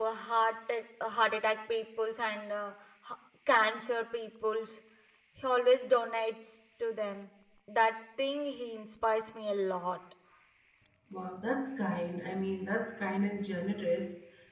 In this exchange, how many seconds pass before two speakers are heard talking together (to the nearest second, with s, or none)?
none